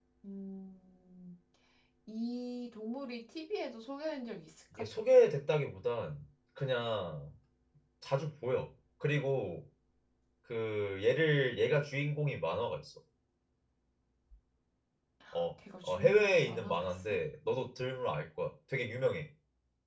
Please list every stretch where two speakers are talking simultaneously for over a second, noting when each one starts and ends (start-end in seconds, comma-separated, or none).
15.8-17.2